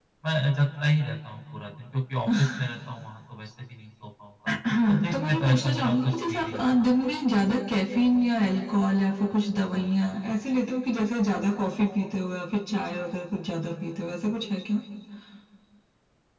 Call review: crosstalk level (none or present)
present